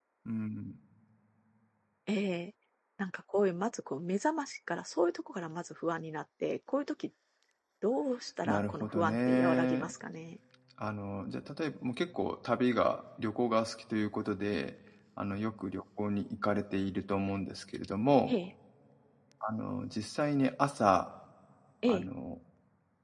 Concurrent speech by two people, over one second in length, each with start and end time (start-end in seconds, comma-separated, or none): 8.4-9.9